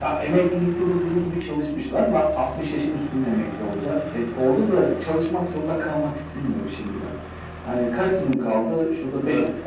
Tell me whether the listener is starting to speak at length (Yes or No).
No